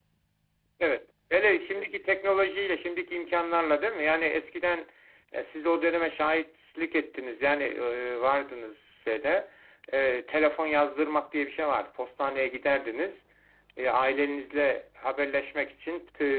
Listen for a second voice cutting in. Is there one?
No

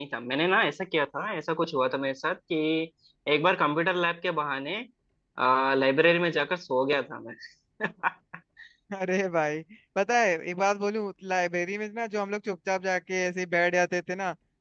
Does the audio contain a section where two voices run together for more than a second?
No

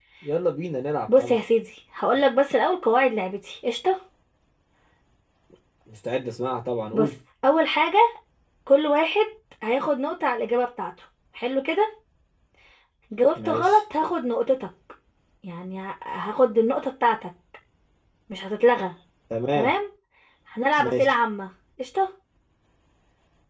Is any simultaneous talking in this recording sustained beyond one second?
No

